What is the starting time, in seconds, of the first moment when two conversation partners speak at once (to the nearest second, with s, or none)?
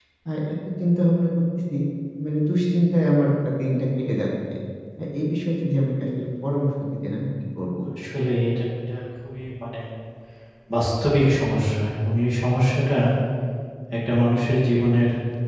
none